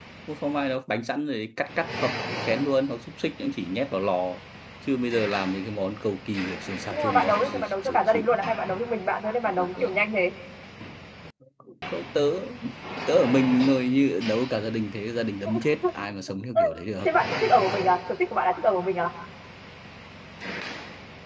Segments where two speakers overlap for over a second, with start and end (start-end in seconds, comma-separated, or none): 6.9-8.2